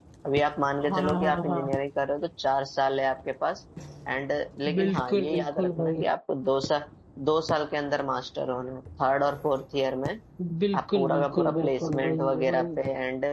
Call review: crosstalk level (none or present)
present